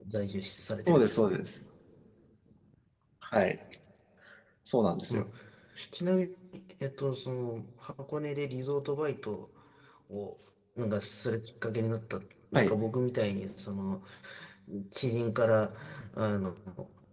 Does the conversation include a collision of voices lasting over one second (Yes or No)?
No